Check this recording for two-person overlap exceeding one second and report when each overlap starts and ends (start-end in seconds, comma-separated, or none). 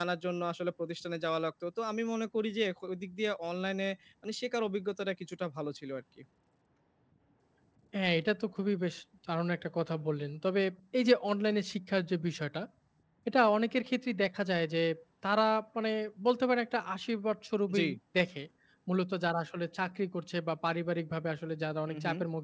none